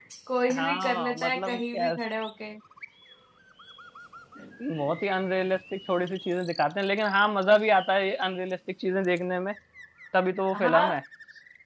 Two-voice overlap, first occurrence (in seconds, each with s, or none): 0.5 s